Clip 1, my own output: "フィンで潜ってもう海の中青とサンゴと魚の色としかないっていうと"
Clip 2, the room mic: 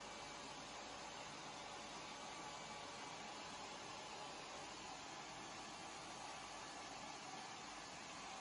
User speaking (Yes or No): No